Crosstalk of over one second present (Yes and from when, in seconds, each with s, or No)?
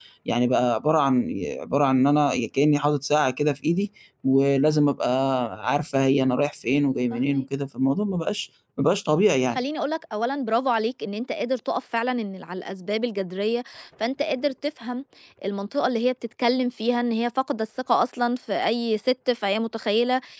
No